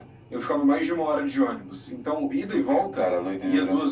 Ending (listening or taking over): listening